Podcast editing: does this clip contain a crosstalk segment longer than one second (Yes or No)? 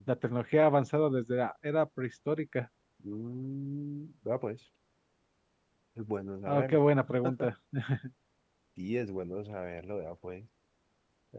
No